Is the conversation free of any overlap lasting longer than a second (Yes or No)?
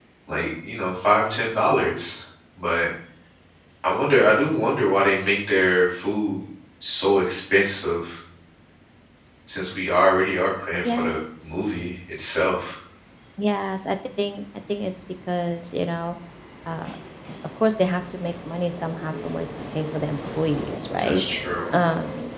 Yes